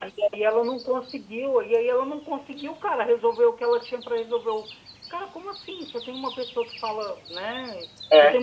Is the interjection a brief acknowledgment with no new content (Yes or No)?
Yes